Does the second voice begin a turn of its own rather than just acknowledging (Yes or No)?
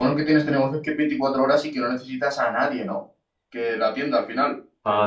No